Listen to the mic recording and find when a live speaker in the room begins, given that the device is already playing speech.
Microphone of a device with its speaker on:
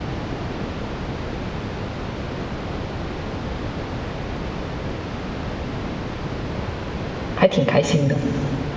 7 s

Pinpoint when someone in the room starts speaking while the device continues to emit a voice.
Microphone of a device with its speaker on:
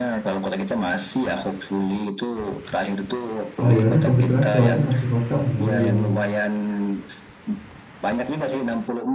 4 s

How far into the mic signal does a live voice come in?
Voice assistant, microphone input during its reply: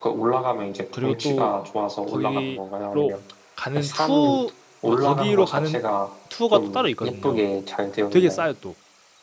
1 s

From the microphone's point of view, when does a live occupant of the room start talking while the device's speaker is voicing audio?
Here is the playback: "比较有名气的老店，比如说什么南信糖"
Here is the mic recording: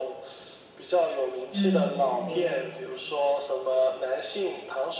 2 s

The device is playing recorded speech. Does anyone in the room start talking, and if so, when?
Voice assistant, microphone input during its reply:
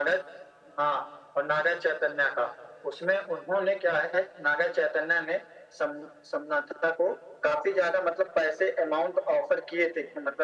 none

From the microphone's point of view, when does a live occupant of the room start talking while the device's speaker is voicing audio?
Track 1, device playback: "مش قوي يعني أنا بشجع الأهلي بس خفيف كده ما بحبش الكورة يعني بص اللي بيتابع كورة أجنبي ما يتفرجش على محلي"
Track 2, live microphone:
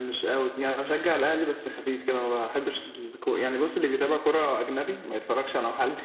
none

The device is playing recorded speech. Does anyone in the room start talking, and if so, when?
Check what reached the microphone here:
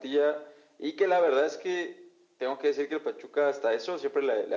none

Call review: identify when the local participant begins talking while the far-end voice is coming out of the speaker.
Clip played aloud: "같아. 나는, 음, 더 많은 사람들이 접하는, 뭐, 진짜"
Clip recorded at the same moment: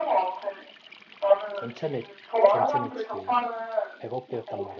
2 s

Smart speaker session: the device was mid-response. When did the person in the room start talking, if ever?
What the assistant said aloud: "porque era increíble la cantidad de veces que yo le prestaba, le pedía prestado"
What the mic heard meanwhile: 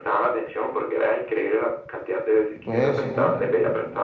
3 s

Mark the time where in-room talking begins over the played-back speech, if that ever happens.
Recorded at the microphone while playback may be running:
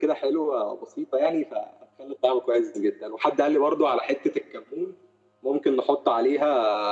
none

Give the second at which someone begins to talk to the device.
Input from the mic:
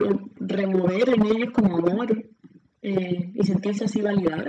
none

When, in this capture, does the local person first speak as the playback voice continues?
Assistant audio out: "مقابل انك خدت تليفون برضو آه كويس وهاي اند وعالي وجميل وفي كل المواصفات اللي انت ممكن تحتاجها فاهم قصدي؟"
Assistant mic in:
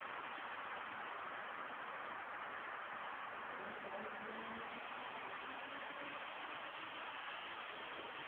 none

